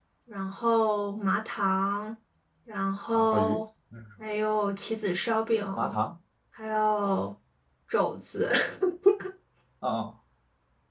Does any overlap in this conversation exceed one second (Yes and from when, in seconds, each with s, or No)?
No